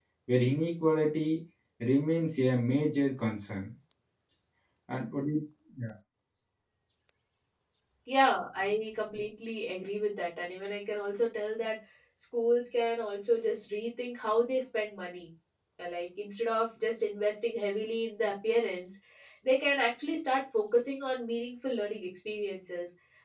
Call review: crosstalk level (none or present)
none